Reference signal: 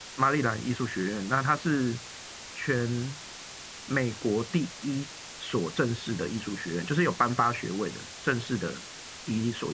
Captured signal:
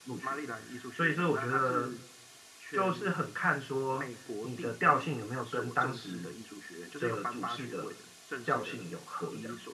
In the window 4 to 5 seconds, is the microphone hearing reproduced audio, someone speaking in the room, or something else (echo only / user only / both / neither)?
both